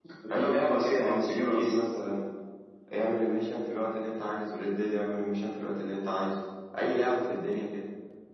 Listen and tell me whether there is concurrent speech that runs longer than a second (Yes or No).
Yes